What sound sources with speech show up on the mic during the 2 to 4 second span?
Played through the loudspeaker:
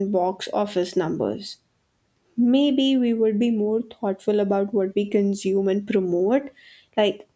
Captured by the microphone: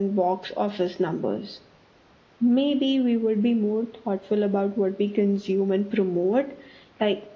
echo only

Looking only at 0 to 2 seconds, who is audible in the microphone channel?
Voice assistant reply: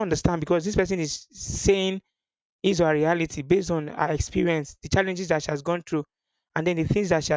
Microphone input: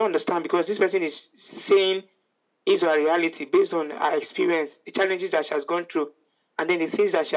echo only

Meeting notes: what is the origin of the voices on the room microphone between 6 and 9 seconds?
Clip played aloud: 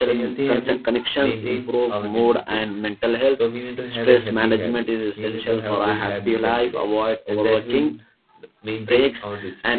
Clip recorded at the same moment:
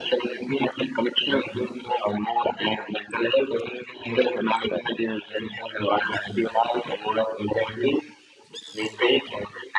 echo only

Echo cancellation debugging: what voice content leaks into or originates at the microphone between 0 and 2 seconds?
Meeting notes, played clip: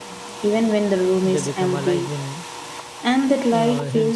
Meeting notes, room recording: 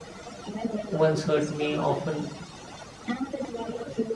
both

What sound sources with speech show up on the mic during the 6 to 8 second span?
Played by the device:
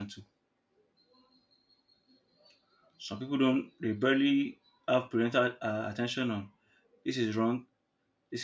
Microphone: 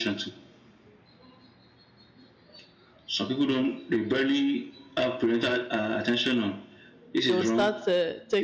both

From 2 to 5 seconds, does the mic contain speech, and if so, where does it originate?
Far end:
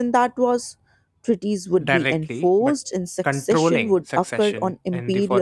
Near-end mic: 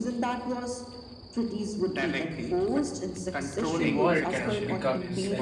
both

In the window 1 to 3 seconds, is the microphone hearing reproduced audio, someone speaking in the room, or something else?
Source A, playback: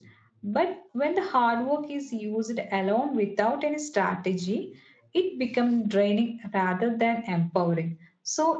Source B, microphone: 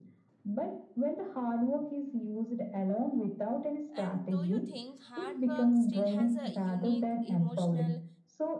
echo only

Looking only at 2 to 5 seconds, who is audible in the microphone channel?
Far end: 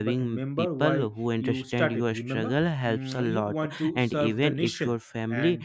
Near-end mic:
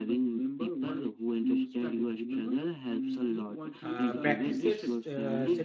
both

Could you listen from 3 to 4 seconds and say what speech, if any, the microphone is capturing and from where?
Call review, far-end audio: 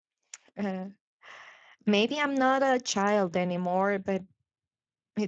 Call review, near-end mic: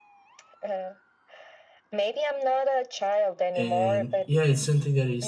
both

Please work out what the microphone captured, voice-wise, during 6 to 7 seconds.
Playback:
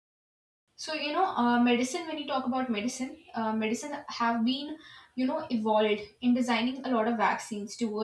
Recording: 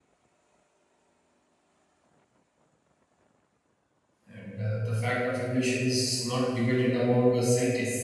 user only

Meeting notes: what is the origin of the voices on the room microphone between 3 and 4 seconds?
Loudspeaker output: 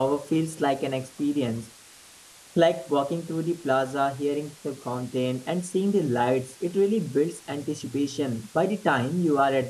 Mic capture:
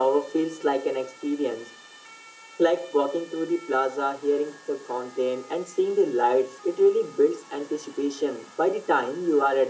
echo only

